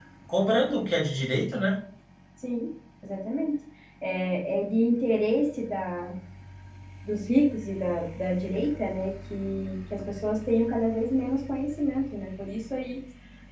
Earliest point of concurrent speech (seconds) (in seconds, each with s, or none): none